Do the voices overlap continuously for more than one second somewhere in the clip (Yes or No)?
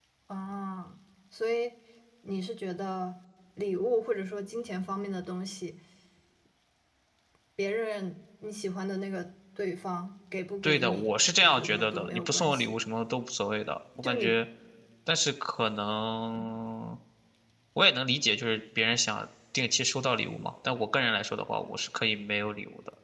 Yes